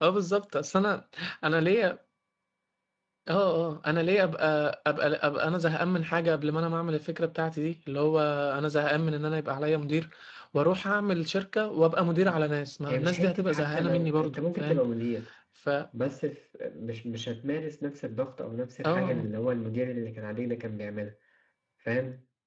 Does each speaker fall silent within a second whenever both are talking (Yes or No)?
No